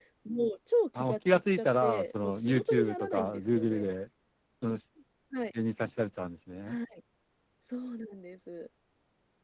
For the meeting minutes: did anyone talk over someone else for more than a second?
Yes, from 0.9 s

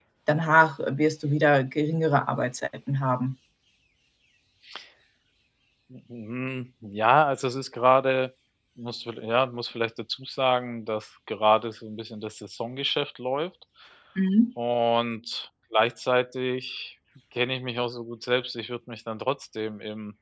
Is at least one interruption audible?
No

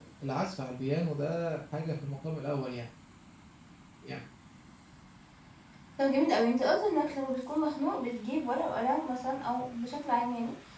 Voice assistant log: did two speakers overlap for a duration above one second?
No

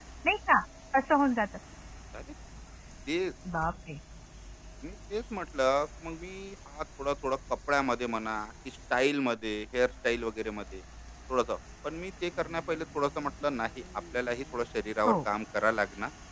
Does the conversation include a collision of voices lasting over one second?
No

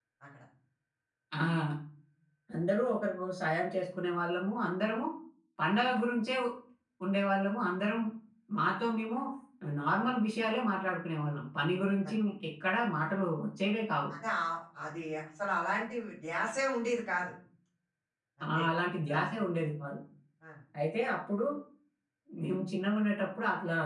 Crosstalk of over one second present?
No

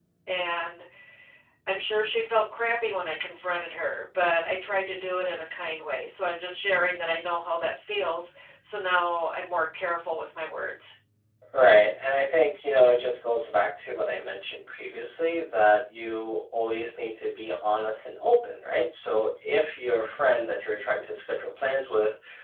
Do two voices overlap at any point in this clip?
No

